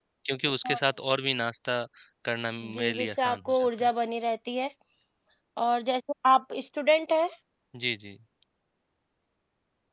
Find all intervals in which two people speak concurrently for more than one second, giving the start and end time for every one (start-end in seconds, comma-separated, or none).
2.6-3.9